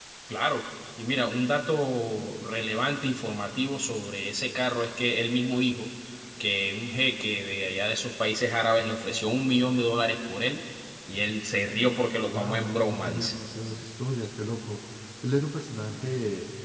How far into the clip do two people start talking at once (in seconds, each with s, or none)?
12.2 s